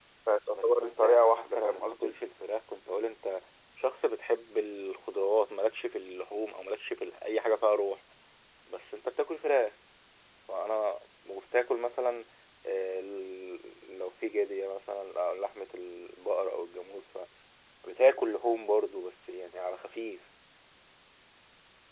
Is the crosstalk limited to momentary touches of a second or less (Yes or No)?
No